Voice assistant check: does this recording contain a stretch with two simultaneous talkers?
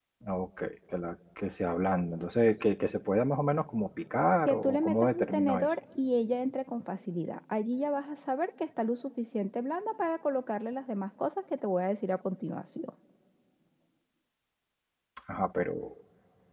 Yes, from 4.5 s

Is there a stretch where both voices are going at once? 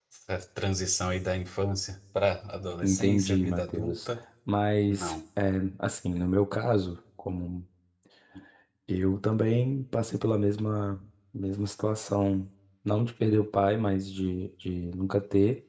Yes, from 2.8 s

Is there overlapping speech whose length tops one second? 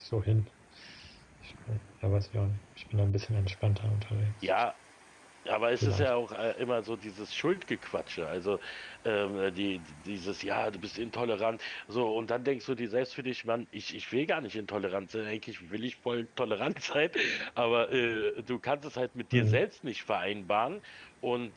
No

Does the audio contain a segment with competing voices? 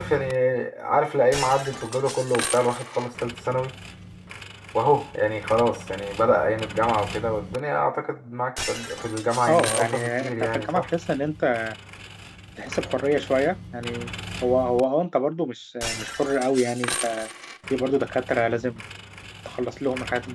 Yes, from 9.5 s

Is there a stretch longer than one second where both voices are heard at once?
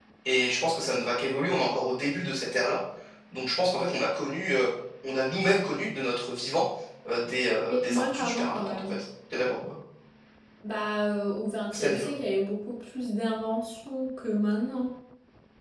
Yes, from 7.7 s

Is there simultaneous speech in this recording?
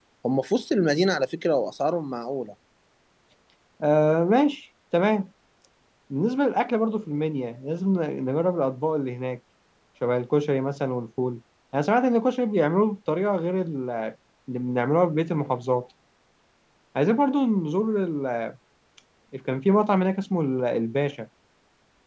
No

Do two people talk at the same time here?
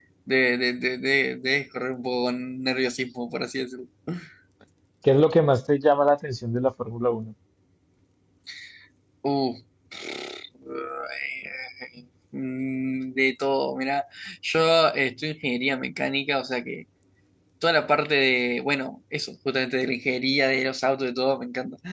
No

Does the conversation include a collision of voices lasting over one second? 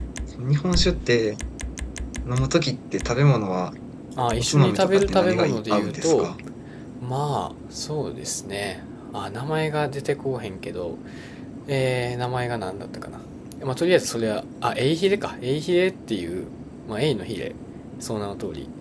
Yes, from 4.4 s

